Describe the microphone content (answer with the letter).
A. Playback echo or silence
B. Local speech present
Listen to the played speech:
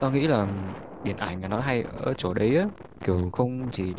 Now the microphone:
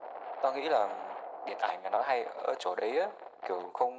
A